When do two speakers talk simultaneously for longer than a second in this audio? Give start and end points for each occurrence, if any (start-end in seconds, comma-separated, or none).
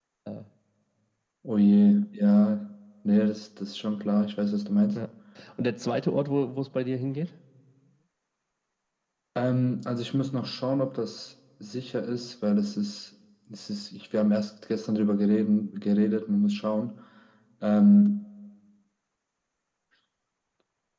none